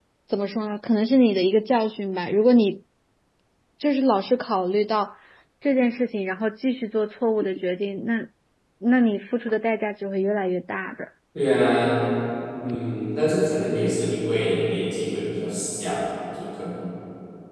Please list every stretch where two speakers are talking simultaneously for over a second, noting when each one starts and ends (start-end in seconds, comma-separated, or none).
none